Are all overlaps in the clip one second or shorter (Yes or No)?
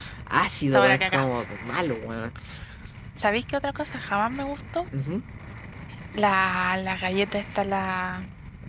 Yes